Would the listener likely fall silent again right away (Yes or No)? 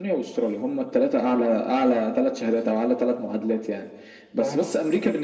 Yes